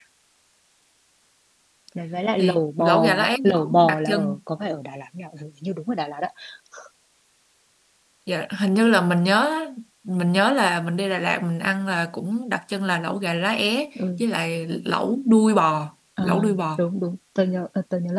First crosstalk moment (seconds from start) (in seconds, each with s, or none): 2.4 s